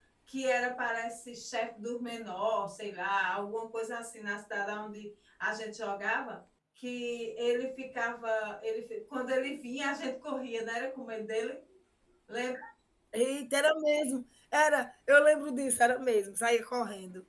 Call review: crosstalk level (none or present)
none